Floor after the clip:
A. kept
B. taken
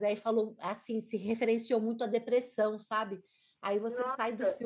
A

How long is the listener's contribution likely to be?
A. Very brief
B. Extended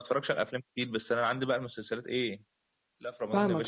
B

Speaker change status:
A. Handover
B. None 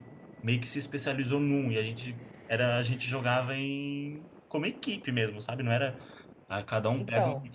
B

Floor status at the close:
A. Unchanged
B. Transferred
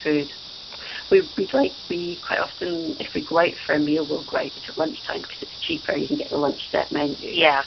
A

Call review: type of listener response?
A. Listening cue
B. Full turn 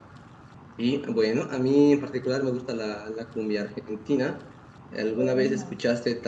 A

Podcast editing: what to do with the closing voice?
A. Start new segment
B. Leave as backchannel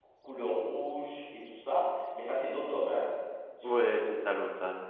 A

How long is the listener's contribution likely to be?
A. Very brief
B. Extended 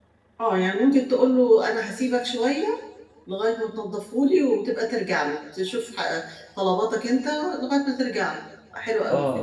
B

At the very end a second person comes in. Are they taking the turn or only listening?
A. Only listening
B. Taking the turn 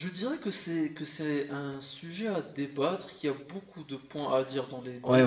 B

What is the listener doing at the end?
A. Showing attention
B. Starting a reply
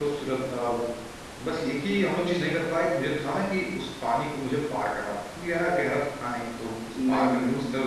A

